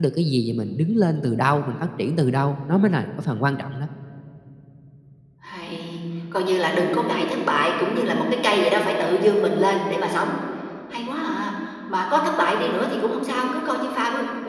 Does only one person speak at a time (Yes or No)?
Yes